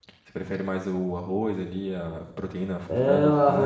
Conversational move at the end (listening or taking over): taking over